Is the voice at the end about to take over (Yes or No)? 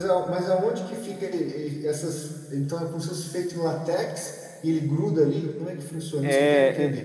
Yes